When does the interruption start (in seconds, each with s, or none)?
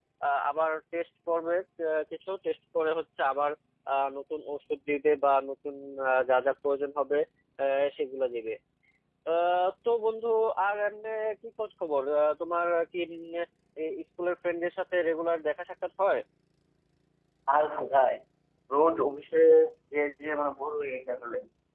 none